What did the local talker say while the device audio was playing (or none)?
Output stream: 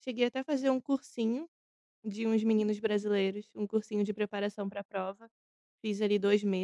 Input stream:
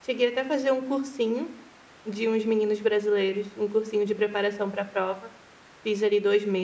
none